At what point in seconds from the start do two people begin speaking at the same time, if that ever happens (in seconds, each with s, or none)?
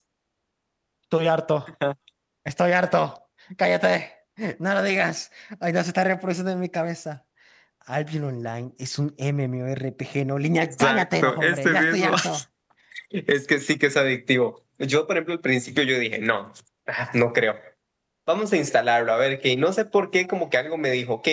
10.7 s